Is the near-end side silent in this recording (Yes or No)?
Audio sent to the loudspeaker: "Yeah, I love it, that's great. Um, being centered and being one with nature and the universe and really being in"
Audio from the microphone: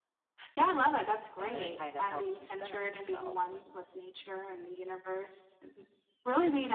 No